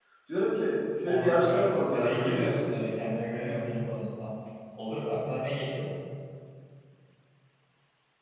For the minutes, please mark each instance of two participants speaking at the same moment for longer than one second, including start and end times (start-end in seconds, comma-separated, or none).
1.0-2.7